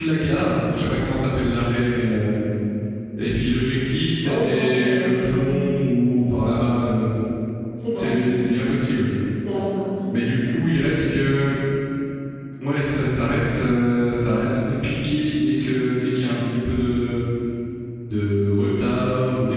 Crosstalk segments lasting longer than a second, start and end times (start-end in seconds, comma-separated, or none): 4.2-5.4